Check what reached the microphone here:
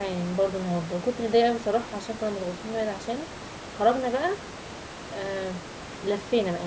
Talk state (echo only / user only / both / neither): user only